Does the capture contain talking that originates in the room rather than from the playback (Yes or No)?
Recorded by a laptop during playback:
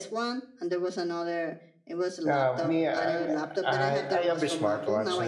Yes